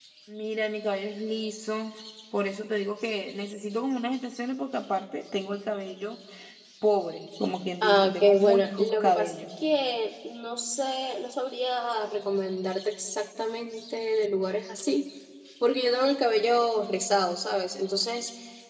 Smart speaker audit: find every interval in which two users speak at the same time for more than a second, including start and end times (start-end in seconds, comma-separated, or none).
7.8-9.3